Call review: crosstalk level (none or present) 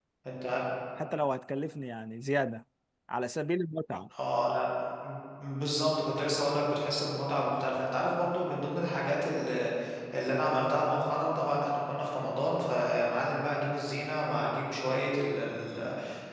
none